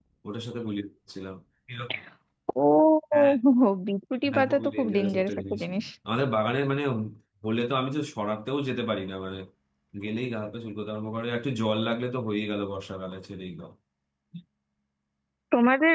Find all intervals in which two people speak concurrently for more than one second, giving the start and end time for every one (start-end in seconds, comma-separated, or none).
4.3-5.6